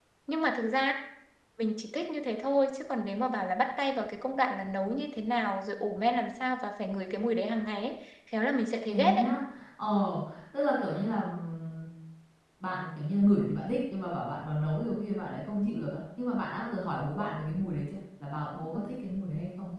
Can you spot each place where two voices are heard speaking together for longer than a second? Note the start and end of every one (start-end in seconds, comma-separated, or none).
none